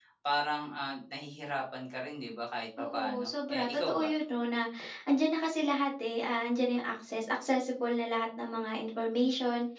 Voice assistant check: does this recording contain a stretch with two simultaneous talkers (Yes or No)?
Yes